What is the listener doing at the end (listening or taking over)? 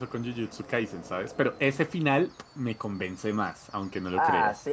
taking over